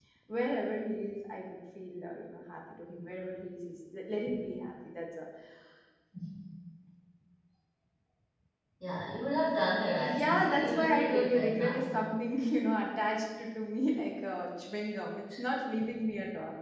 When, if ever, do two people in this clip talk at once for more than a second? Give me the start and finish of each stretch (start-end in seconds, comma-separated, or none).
10.0-11.9